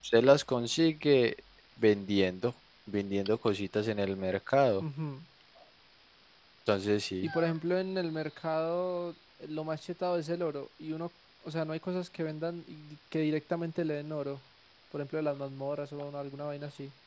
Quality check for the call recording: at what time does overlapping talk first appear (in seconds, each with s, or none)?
none